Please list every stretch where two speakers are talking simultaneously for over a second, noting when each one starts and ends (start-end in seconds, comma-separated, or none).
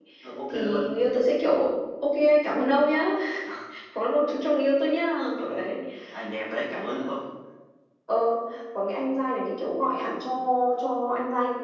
none